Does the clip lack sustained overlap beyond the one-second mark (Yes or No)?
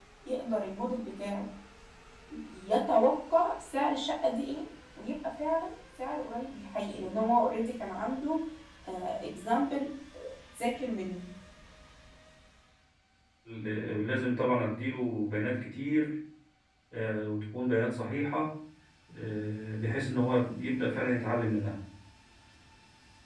Yes